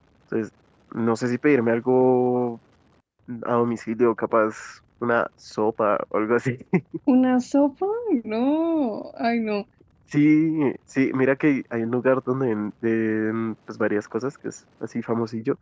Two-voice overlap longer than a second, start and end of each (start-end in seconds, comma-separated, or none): none